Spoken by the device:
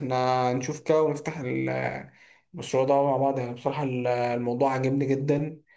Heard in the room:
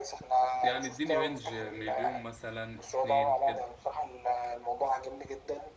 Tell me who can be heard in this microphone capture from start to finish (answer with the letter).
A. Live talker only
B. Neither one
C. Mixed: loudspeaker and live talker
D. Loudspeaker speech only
C